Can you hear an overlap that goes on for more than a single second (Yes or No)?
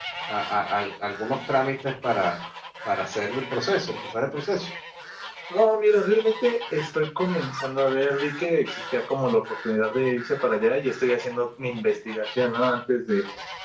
No